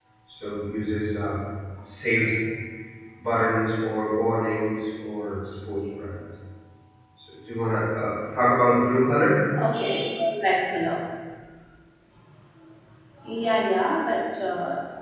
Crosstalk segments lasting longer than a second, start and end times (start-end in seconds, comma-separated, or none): none